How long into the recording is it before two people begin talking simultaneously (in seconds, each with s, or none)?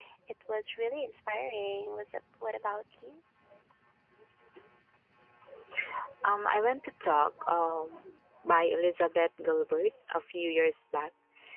none